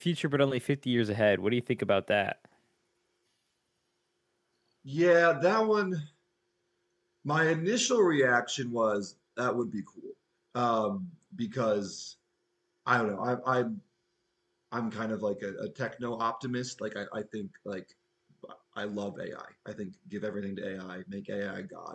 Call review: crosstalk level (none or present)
none